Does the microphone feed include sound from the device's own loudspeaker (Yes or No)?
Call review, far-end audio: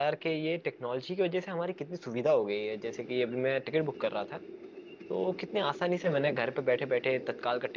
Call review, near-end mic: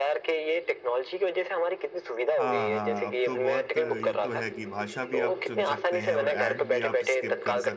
Yes